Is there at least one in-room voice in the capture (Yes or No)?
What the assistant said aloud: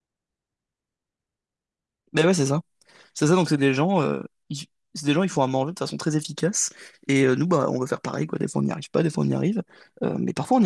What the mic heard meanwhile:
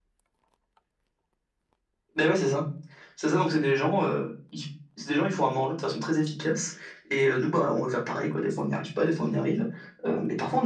No